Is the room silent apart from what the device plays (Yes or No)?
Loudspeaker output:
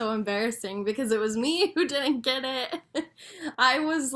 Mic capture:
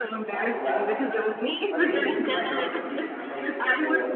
No